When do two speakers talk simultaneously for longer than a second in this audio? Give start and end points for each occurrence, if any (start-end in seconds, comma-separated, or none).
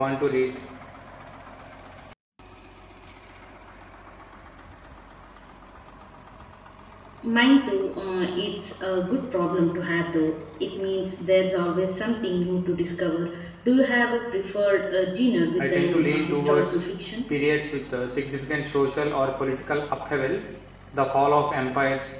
15.6-16.8